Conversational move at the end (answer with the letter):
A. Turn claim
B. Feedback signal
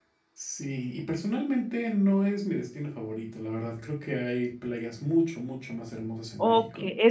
A